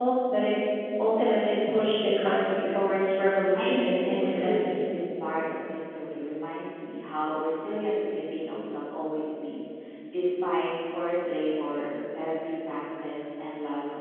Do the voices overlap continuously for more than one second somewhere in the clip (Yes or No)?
Yes